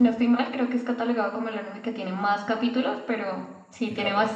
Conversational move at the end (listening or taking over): listening